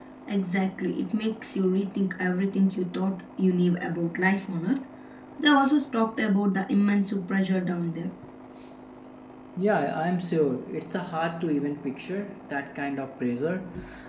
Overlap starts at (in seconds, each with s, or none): none